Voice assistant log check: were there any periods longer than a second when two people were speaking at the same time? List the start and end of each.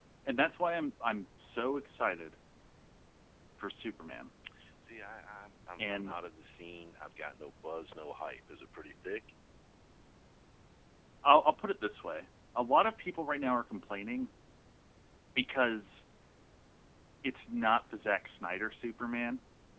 none

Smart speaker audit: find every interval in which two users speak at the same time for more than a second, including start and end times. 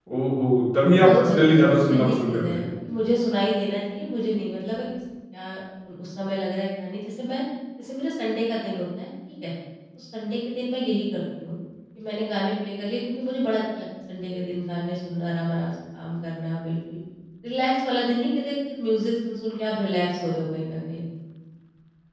0.9-2.7

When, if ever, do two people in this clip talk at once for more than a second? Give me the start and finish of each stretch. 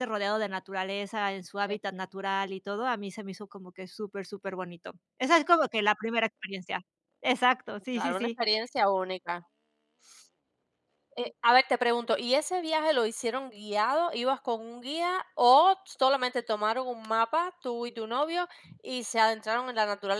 none

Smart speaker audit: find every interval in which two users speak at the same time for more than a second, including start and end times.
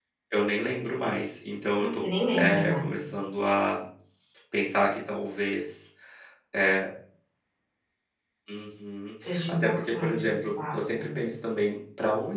1.7-2.9, 9.1-11.2

